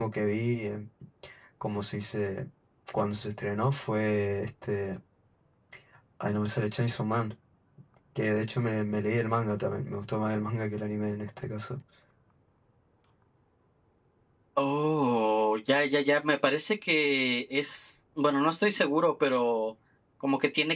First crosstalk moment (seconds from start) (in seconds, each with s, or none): none